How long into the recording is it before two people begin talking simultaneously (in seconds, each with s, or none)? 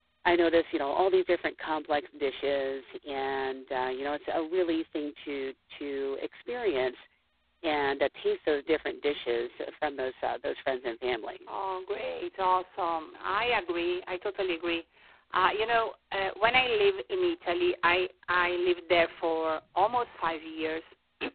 none